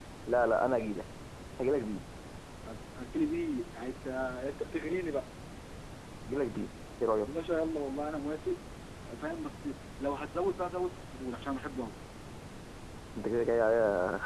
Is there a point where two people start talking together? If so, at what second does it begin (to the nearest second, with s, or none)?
none